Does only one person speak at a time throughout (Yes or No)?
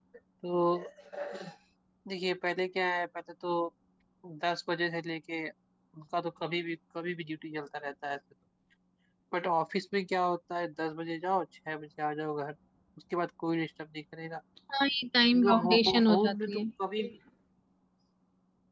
No